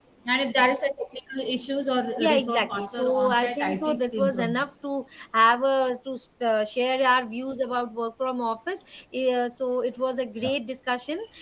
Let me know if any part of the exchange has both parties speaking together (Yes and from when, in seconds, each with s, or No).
Yes, from 2.2 s